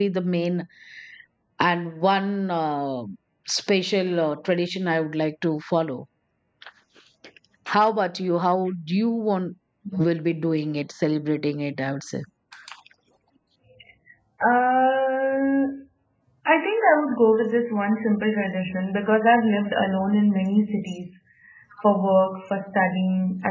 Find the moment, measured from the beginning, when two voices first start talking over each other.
none

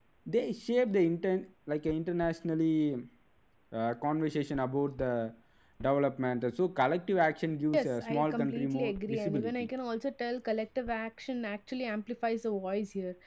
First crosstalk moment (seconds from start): 7.7 s

